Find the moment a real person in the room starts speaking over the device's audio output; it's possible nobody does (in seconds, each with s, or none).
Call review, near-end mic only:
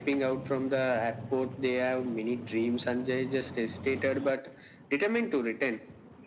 none